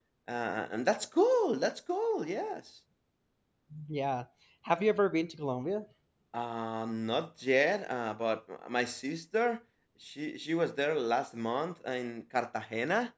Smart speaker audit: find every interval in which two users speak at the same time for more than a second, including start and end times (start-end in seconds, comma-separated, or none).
none